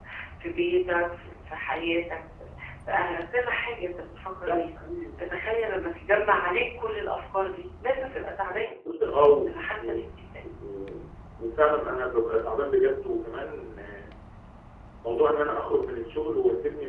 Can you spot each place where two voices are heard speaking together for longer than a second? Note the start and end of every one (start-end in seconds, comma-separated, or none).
none